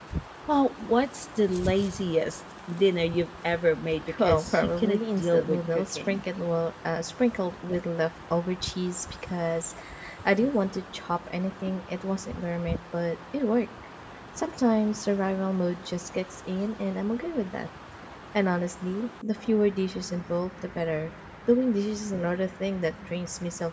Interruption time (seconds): 4 s

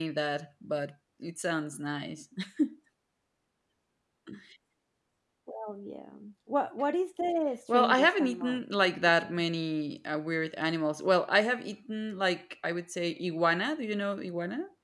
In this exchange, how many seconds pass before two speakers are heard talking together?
8 s

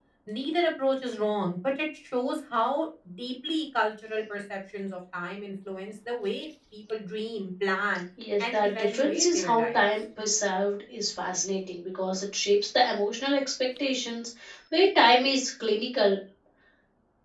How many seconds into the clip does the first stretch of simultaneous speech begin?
8 s

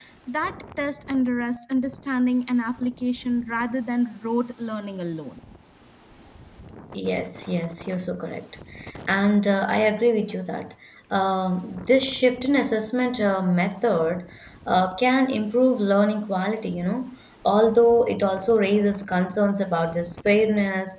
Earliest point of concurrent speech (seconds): none

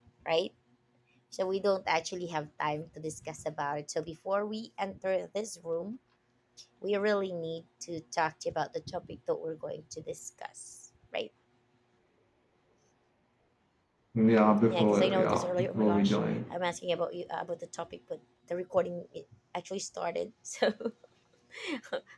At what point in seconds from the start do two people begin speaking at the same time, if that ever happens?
15 s

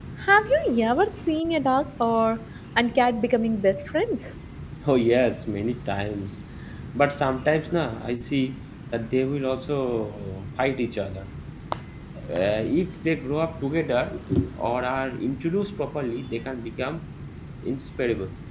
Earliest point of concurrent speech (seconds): none

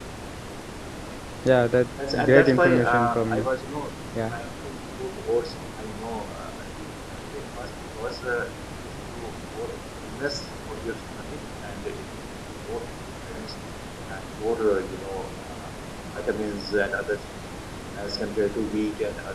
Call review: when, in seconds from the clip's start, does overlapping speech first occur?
2 s

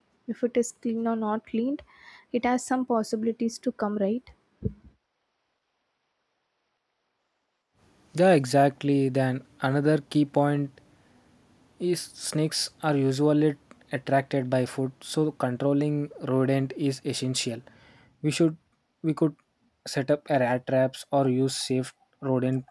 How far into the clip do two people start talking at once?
none

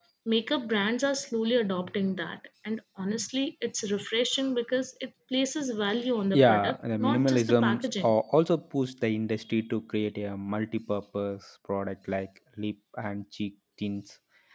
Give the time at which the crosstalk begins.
6 s

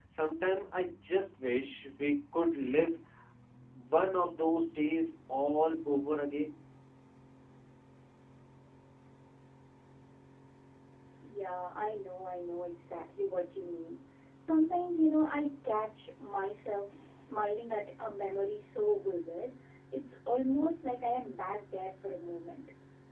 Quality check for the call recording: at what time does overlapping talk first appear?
none

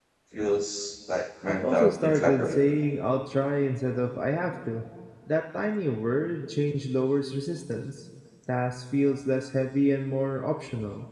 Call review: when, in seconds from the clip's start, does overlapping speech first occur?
1 s

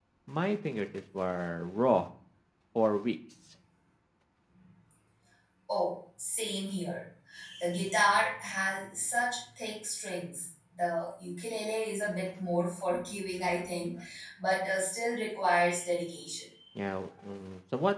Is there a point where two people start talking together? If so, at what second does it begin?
none

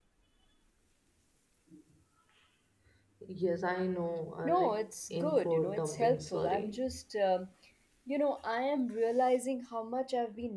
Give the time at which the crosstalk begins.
4 s

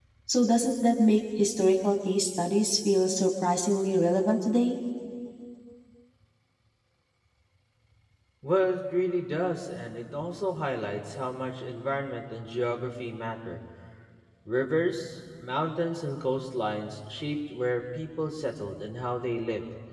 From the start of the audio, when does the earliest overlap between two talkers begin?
none

